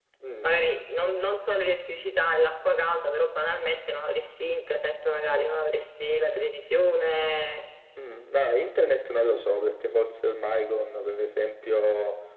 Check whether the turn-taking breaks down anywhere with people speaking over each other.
No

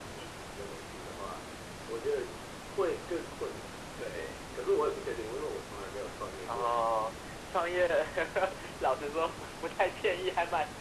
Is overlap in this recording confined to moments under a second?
Yes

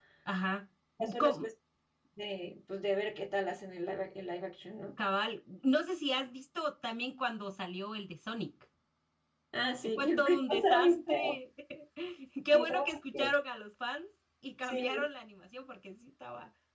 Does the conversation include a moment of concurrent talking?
Yes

